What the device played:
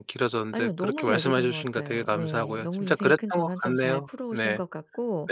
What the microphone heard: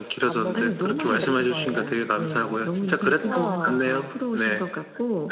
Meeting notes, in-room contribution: present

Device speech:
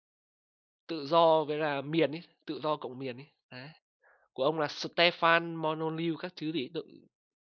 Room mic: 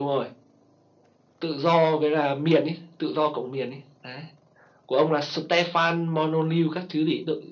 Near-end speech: none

